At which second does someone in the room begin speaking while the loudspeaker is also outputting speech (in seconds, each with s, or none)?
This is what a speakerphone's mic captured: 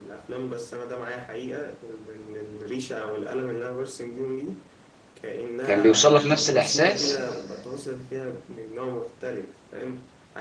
5.6 s